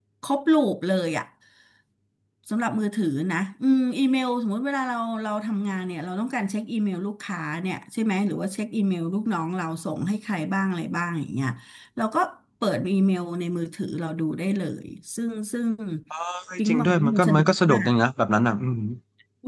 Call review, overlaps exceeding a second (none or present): present